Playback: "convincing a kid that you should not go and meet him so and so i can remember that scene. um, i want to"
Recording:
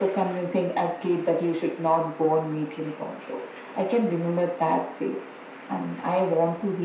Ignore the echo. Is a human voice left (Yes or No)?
No